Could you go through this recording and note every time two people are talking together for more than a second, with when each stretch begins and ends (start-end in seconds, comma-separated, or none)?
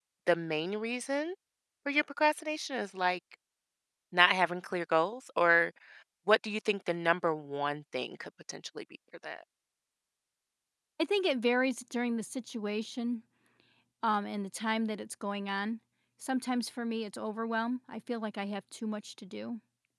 none